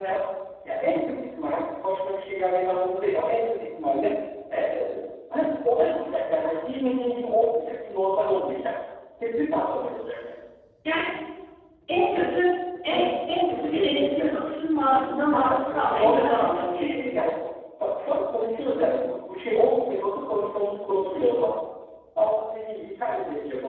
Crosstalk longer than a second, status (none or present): present